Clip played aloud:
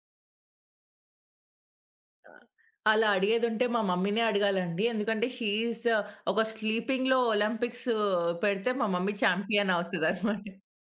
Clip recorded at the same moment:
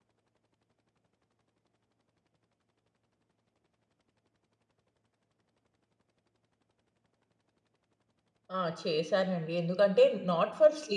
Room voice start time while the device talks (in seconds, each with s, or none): 8.6 s